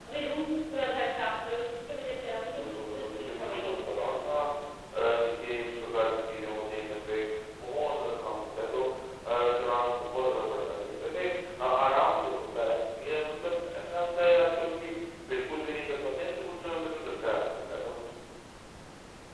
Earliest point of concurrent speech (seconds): 2.4 s

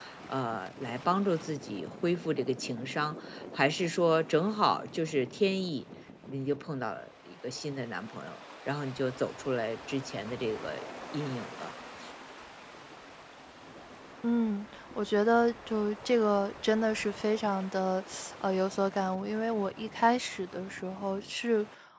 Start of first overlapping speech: none

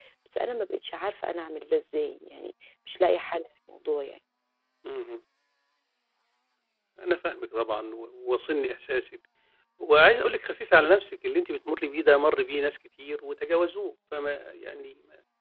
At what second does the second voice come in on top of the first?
none

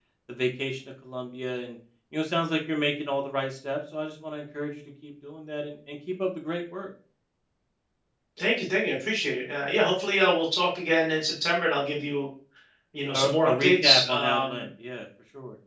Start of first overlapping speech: 13.1 s

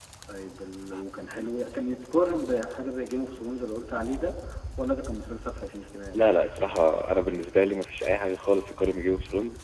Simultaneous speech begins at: none

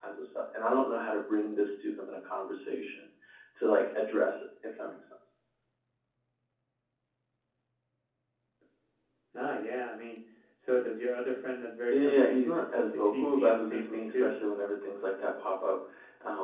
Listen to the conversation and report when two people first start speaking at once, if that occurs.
11.9 s

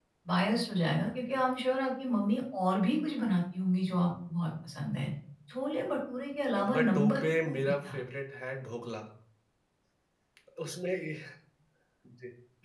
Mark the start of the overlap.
6.5 s

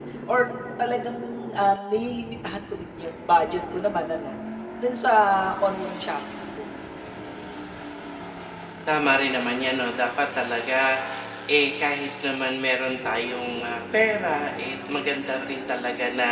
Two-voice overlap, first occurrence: none

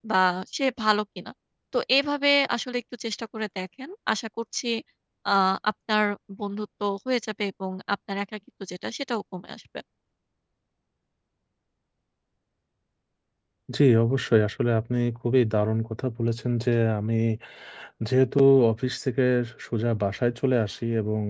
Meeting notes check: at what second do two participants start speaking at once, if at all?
none

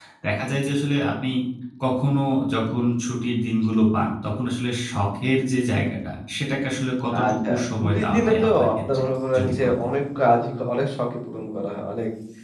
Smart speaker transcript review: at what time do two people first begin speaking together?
7.2 s

